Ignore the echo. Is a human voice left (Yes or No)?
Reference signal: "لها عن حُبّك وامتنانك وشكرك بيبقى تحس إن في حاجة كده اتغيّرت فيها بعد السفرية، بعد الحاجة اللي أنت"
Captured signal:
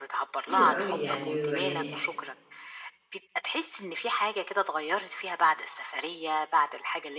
Yes